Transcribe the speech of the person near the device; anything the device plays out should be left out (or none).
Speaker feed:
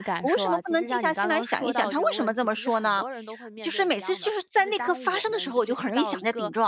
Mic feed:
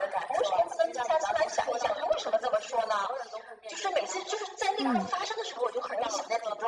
嗯